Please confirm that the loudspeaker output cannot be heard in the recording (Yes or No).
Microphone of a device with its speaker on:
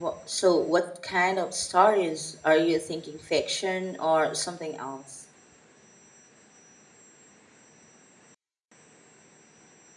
Yes